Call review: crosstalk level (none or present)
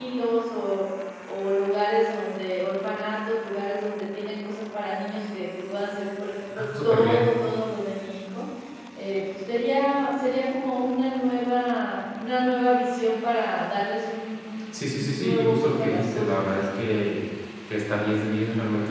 present